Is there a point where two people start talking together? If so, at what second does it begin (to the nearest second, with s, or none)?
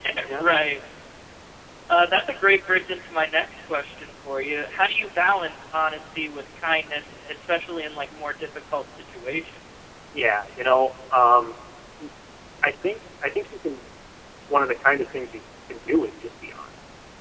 none